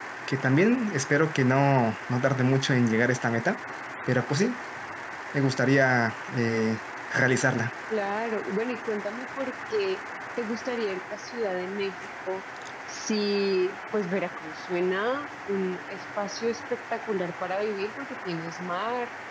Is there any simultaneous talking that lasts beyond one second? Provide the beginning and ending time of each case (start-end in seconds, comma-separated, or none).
none